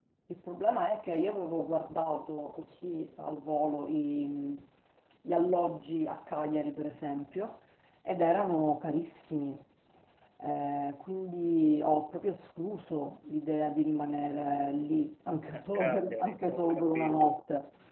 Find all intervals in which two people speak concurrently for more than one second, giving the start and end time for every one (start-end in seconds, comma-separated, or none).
15.5-17.4